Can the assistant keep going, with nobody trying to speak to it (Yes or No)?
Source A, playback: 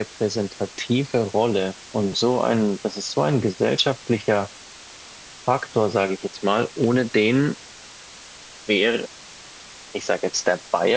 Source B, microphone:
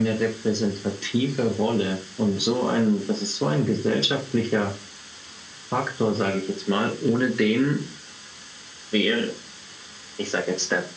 Yes